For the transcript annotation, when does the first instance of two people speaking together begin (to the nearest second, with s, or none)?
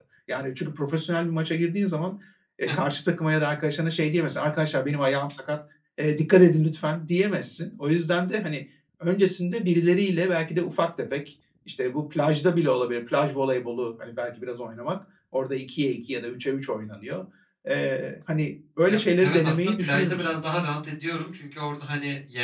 19 s